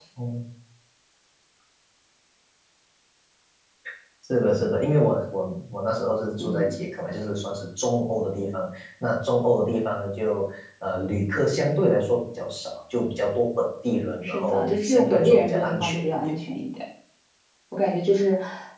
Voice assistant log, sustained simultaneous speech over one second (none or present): present